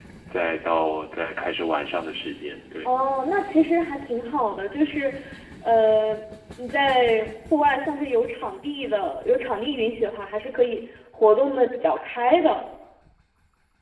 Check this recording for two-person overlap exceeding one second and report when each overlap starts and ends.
none

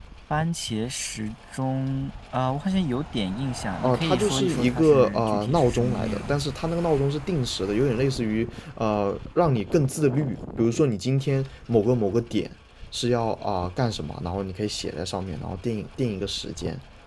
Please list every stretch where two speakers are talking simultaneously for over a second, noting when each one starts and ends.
3.8-6.4

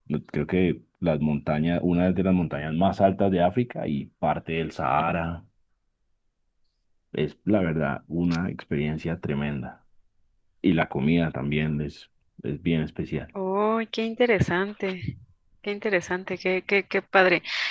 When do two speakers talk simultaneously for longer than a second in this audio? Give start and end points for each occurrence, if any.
none

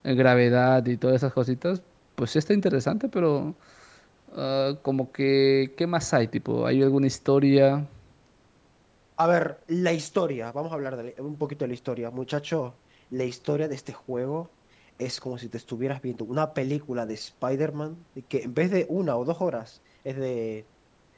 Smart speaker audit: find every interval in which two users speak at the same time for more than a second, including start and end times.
none

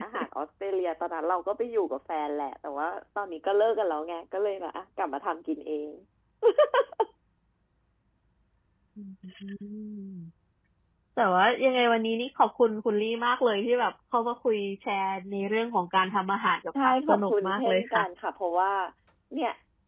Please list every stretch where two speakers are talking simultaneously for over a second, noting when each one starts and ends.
16.8-18.0

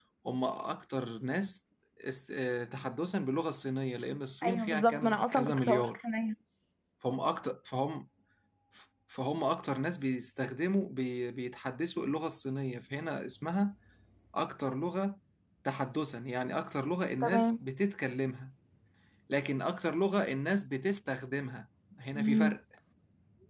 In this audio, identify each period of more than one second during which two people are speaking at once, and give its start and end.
4.4-5.9

